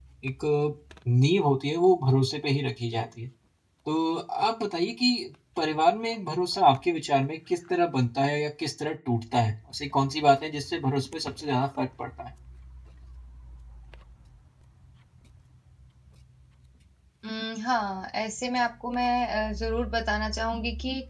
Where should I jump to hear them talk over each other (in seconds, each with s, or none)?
none